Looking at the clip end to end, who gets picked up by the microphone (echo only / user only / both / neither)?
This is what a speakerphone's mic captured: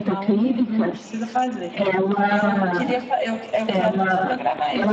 both